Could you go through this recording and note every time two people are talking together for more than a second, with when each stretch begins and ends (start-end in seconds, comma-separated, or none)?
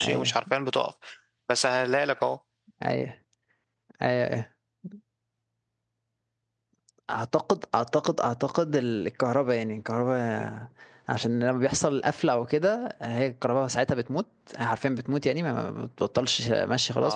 none